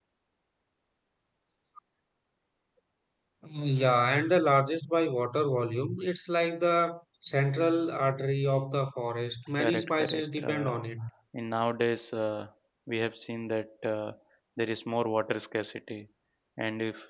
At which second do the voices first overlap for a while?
9.6 s

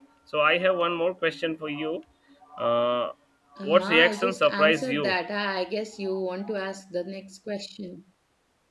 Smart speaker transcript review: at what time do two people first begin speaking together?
3.6 s

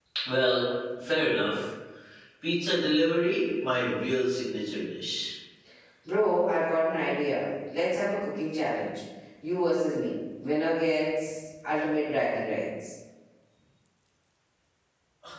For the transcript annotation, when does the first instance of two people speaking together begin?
none

